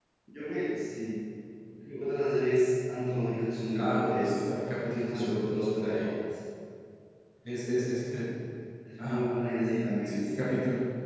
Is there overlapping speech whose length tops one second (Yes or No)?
Yes